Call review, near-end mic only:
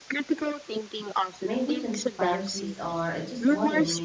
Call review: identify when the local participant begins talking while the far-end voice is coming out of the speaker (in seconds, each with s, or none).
1.4 s